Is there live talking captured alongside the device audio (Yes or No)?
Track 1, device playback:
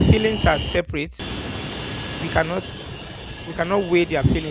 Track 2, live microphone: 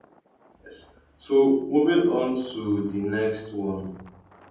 Yes